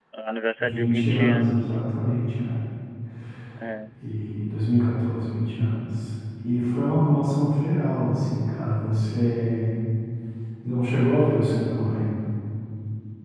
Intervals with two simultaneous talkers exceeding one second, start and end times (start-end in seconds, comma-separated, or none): 0.6-1.8